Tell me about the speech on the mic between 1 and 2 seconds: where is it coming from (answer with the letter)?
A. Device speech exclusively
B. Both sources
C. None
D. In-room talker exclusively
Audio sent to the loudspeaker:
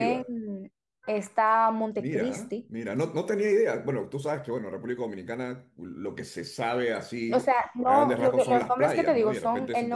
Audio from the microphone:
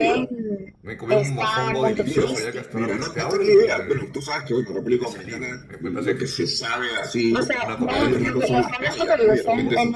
B